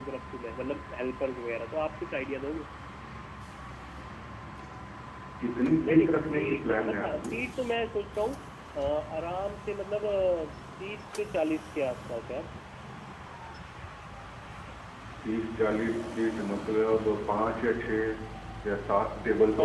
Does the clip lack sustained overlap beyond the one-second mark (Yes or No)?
No